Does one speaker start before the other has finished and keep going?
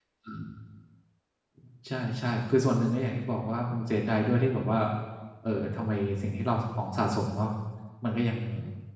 No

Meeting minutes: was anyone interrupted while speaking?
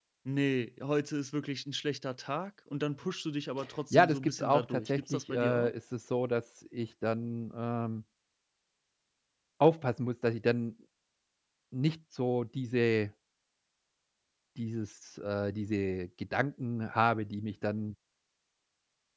Yes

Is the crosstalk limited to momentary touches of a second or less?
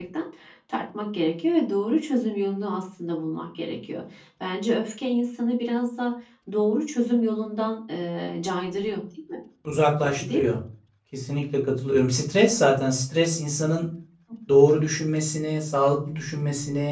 Yes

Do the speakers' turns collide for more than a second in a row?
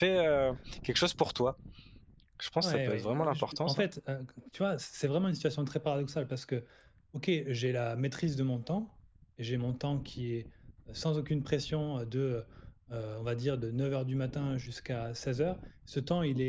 Yes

